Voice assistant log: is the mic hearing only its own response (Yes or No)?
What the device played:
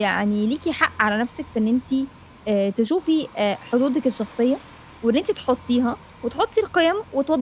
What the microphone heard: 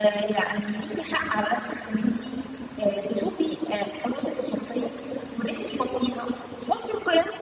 Yes